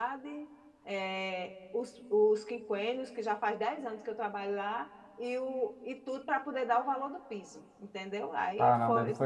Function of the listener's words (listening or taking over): taking over